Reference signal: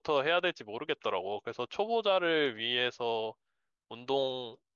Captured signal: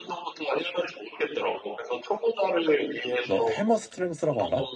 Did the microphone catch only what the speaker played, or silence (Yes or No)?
No